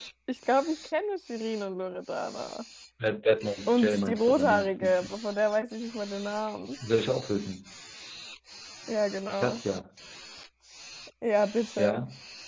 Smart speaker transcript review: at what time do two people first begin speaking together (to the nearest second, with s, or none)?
4 s